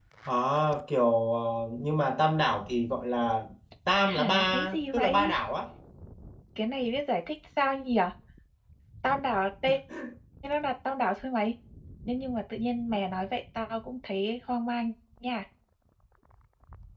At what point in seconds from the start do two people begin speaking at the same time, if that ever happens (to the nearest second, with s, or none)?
4 s